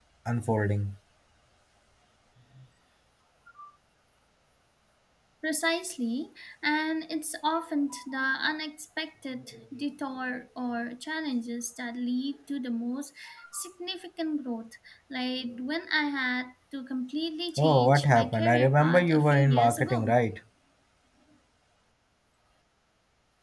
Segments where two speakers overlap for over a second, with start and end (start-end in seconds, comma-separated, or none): 17.6-20.2